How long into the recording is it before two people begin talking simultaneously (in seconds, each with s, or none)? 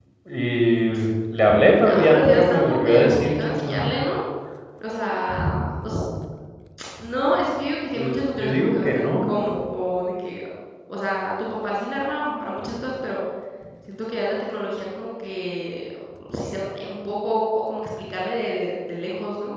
1.8 s